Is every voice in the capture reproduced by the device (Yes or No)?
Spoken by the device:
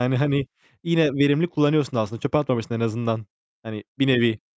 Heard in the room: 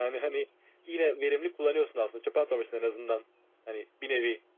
Yes